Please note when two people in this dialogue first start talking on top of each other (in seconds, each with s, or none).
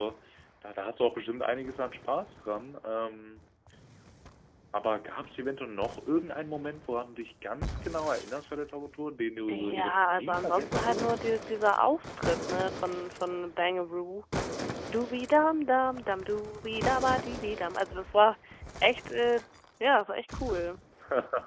9.5 s